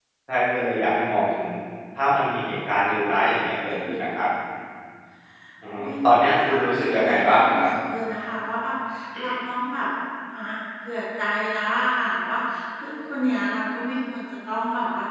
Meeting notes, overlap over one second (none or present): present